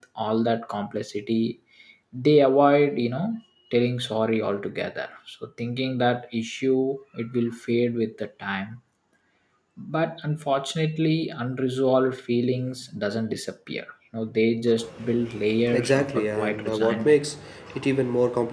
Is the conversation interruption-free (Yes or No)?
No